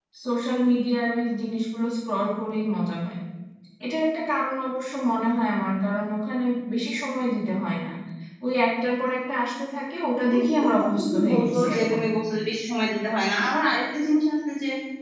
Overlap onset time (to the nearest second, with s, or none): 10 s